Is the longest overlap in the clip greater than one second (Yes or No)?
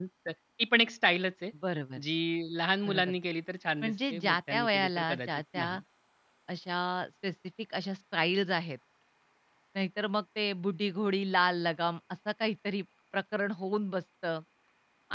Yes